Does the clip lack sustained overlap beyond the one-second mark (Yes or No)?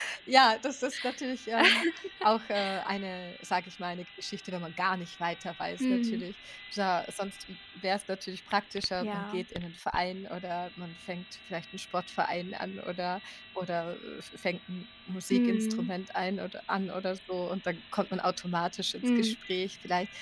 Yes